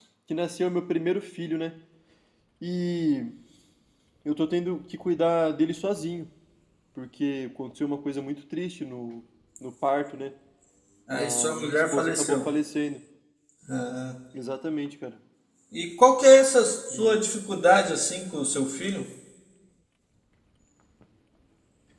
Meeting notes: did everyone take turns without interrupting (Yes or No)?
No